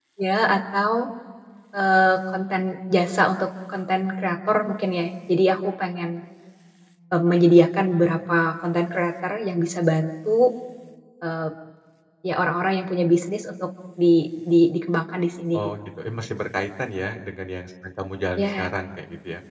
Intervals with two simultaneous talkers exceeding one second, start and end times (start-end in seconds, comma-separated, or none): none